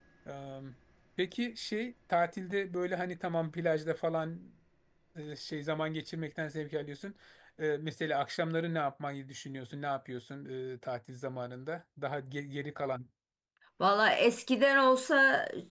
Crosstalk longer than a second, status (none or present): none